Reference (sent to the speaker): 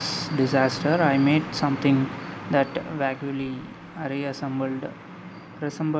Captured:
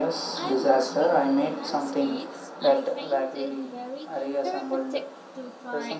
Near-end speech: present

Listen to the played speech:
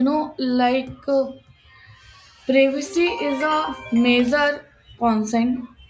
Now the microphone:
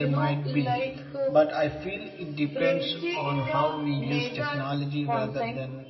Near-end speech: present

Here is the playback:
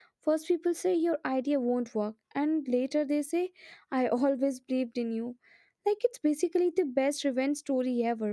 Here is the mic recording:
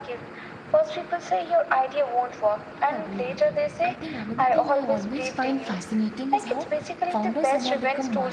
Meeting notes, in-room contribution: present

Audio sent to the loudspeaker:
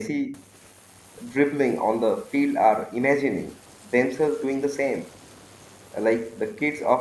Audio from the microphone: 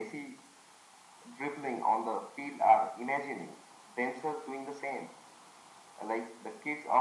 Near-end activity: none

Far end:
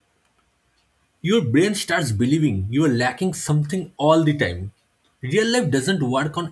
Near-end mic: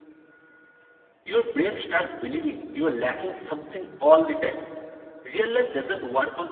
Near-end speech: none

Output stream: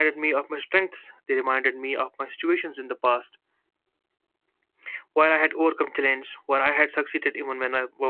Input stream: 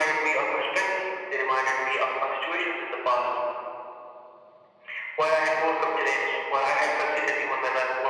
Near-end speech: none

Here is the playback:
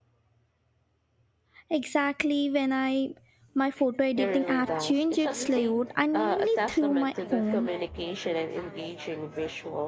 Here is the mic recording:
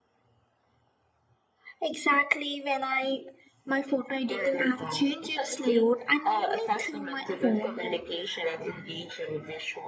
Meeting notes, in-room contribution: none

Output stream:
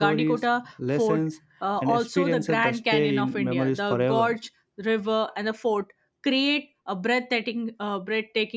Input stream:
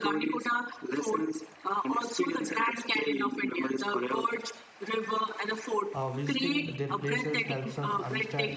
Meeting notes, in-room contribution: present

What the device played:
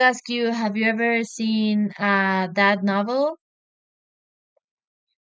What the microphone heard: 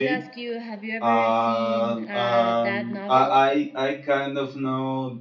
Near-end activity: present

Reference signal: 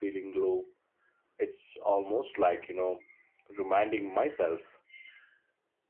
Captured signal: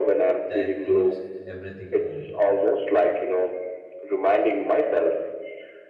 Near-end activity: present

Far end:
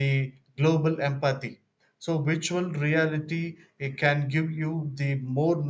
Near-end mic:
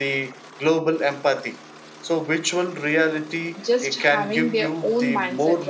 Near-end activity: present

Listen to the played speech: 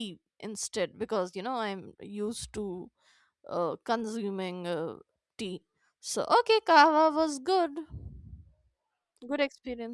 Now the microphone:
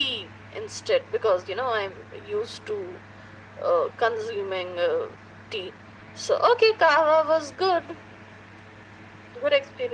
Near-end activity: none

